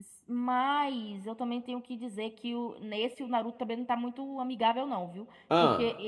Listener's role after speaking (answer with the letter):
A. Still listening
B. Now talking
A